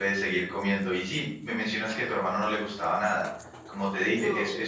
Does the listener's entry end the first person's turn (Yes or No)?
No